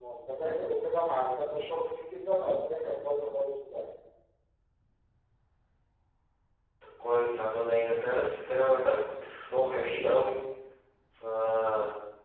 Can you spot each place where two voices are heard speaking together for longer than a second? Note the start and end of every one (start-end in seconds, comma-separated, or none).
none